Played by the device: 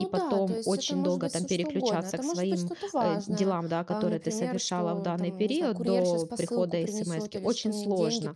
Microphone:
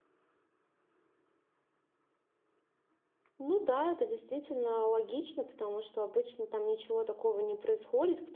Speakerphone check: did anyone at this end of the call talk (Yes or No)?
Yes